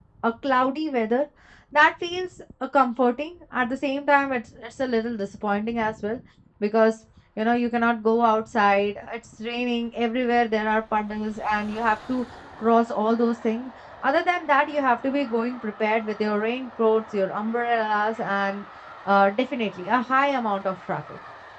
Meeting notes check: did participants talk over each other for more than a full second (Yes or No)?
No